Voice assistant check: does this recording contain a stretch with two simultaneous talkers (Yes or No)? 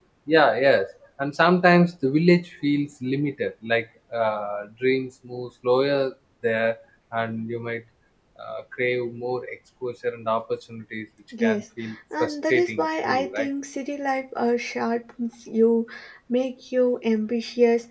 Yes